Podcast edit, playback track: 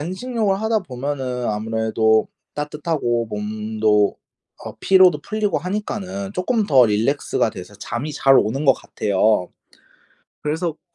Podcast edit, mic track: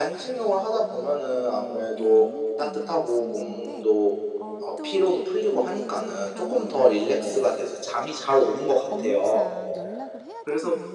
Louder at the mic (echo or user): echo